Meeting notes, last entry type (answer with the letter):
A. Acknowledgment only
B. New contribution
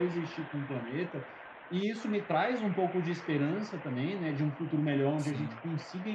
A